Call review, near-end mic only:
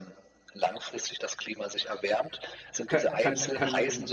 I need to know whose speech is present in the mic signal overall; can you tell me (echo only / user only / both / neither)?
both